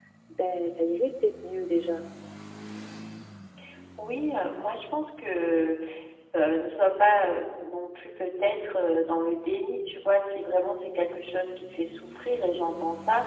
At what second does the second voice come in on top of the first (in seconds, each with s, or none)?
none